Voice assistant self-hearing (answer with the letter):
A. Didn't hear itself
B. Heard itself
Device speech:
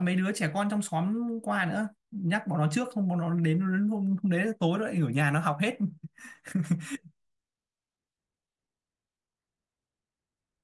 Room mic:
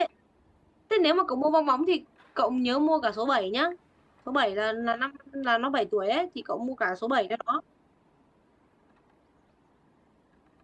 A